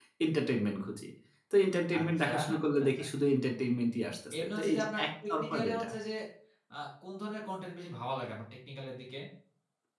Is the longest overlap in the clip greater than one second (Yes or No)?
Yes